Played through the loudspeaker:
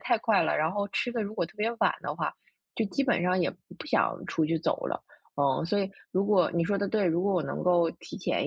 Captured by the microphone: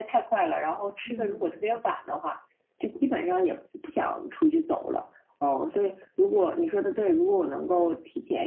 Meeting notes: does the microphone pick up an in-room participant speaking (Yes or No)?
Yes